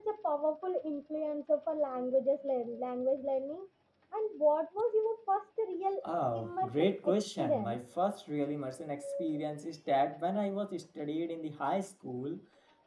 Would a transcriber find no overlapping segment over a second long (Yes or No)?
No